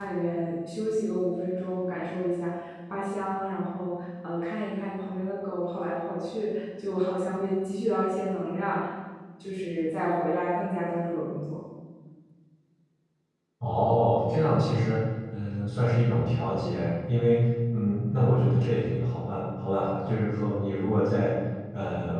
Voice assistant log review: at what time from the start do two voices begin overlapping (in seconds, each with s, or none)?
none